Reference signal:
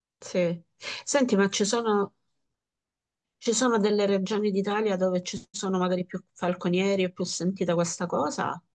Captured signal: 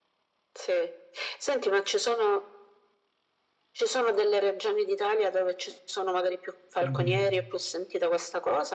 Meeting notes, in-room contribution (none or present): present